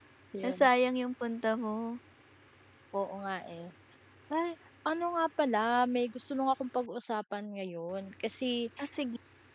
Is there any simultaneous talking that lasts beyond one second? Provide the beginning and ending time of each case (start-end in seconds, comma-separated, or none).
none